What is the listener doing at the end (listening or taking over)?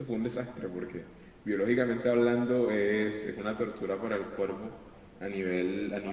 listening